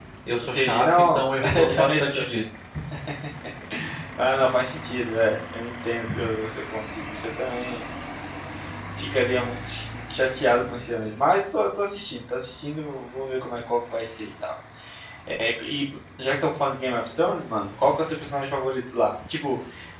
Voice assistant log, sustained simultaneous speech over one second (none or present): present